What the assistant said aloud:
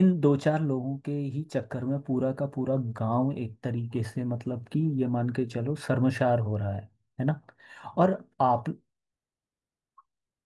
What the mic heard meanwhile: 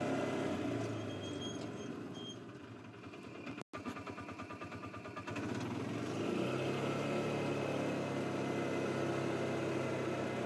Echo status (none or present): none